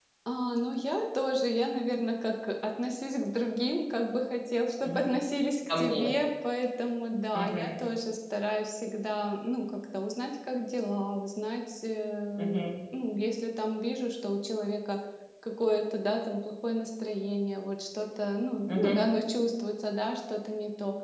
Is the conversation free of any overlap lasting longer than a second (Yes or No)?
Yes